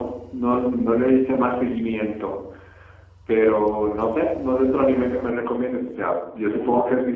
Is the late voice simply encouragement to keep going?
Yes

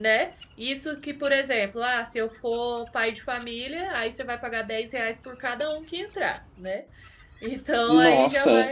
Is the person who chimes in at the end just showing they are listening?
Yes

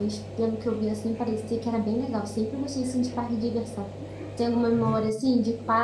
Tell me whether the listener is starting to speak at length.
No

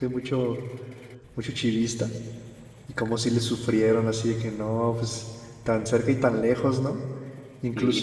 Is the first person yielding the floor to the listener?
Yes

